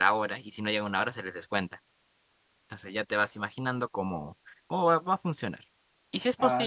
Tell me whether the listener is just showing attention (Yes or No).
Yes